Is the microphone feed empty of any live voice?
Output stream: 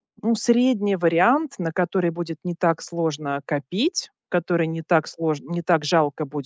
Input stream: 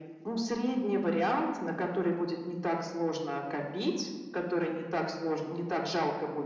Yes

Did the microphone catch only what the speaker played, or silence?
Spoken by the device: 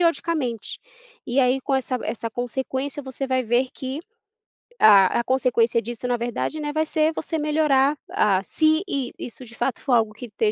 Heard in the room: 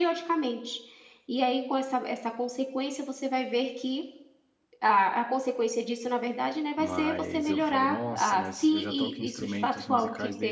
No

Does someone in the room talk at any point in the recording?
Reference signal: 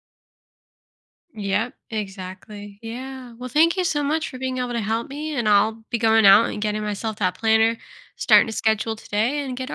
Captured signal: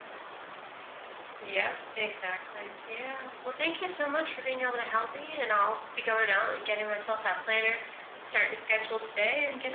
No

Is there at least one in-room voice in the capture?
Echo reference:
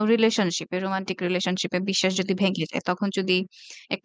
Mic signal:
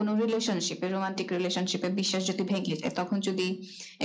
No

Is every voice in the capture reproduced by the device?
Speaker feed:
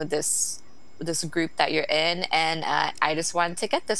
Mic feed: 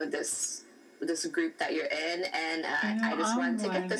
No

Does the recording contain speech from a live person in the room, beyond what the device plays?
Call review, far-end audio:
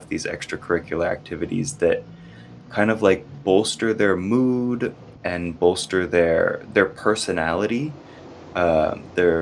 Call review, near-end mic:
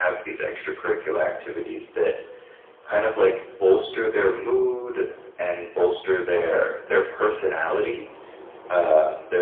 No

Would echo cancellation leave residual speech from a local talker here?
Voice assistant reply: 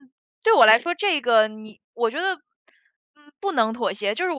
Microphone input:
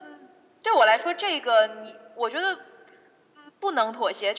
No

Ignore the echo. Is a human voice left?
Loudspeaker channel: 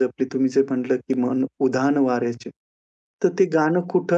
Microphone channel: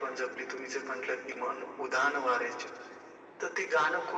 No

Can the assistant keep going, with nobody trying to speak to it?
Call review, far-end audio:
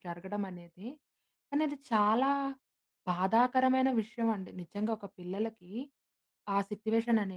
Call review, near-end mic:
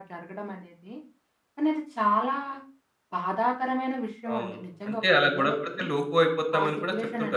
No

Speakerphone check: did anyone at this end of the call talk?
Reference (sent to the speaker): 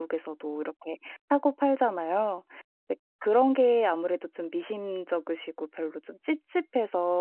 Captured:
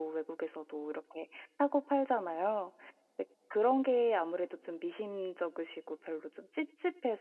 No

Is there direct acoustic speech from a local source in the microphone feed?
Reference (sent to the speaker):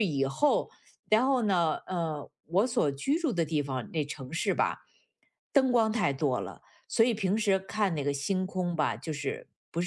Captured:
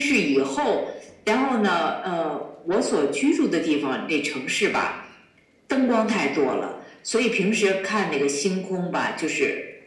No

